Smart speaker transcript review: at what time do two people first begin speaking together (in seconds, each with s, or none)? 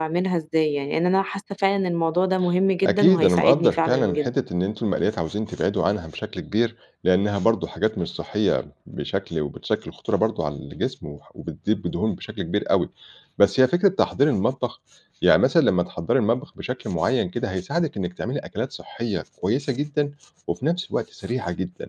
2.8 s